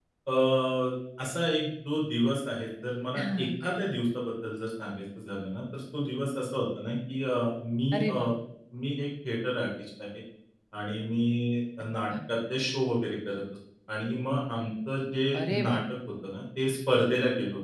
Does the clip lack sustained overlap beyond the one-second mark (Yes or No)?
Yes